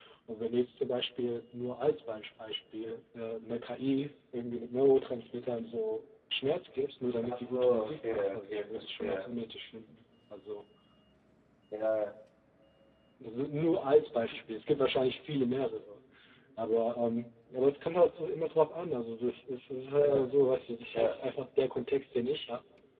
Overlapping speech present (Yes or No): Yes